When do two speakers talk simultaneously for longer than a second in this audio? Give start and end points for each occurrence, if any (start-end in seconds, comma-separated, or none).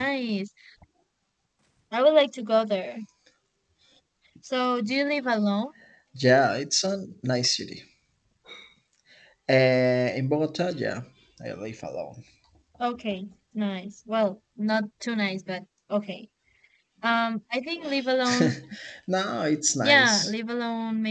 none